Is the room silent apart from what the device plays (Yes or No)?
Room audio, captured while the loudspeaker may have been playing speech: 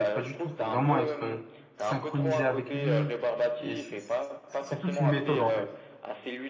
No